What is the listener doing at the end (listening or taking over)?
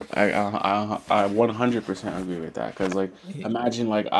listening